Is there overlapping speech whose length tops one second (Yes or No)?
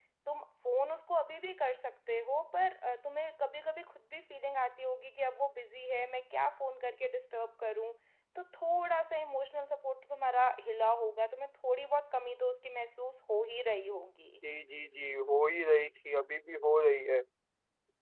No